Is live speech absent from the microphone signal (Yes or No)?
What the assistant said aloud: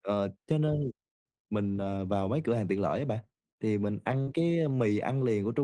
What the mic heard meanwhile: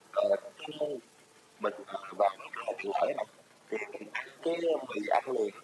Yes